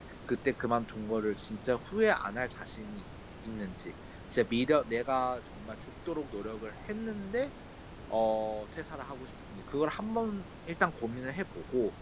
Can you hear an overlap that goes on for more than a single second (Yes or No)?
No